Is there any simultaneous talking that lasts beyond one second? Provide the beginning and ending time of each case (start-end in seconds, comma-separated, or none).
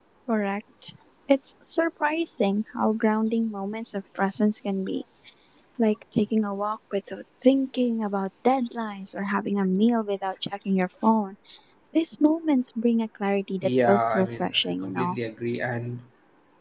13.6-15.2